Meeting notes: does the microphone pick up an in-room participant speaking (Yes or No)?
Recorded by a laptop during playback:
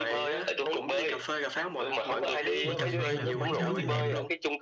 Yes